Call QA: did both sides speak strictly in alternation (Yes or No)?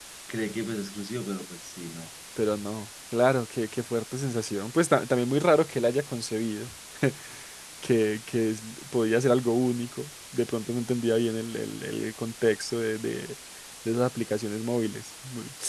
Yes